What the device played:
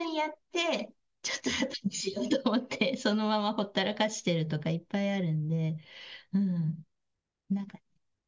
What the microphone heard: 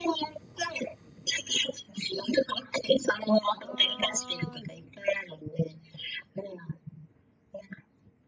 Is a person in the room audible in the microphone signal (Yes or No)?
Yes